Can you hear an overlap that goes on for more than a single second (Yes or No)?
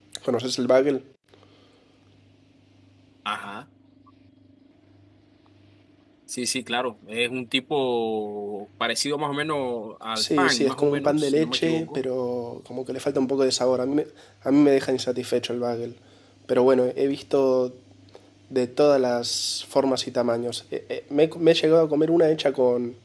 Yes